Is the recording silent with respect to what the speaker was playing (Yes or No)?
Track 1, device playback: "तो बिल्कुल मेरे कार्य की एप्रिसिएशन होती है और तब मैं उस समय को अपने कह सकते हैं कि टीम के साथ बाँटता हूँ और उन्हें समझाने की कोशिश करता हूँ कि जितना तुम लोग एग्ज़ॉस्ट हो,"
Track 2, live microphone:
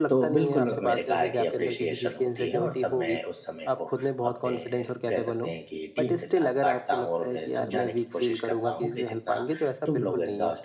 No